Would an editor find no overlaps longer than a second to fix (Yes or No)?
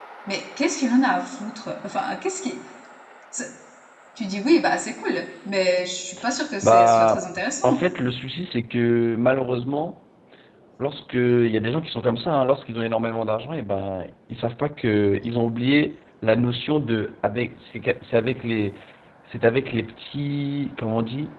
No